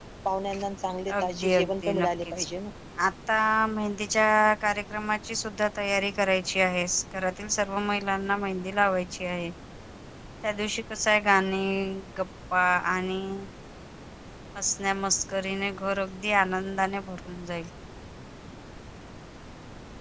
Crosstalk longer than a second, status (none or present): present